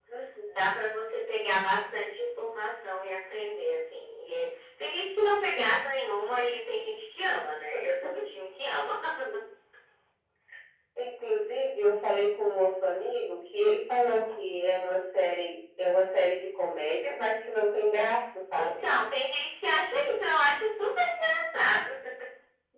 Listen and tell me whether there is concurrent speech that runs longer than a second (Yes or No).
No